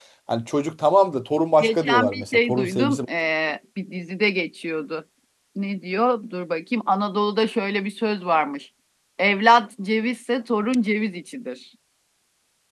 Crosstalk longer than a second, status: present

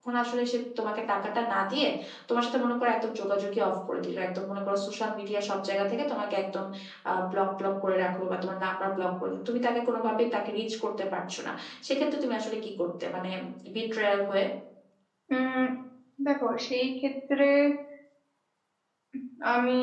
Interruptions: none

